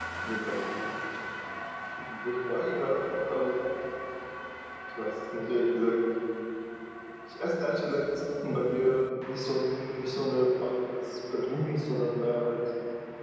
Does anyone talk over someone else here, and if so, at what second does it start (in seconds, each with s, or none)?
none